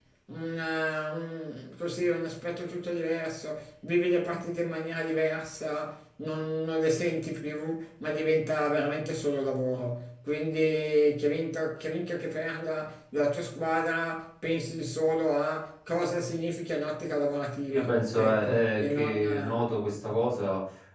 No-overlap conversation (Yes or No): No